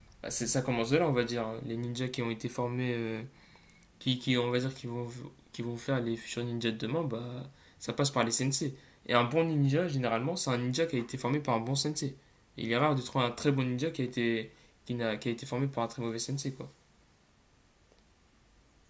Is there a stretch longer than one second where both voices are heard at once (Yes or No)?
No